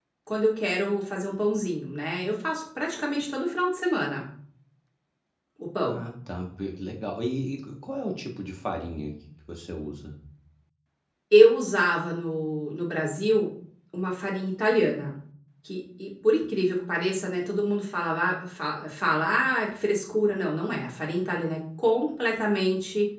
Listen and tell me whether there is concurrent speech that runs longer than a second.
No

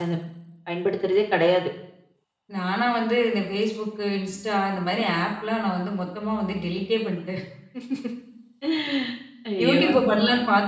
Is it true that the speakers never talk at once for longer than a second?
Yes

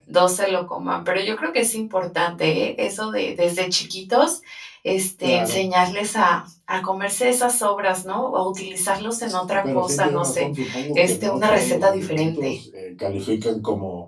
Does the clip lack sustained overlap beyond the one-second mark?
No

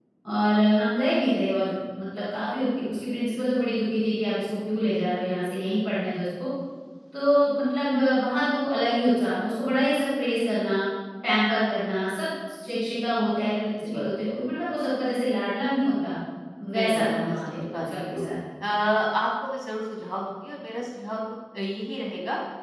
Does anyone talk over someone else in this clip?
Yes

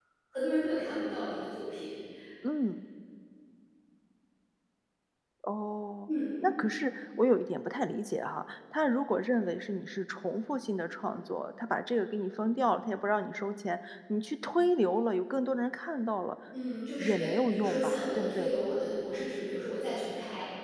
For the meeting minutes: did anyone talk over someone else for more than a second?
Yes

